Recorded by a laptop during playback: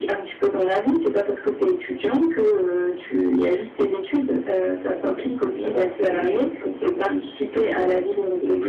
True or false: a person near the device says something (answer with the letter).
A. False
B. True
A